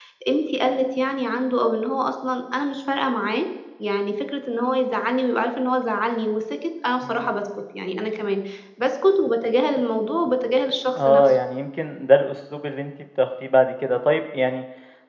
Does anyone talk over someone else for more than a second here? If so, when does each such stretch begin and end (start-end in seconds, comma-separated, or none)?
none